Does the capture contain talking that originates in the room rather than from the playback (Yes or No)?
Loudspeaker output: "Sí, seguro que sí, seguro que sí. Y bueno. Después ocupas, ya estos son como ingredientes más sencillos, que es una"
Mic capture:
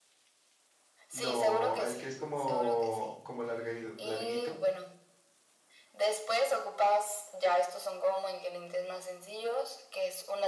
Yes